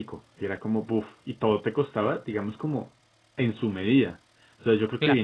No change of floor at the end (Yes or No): Yes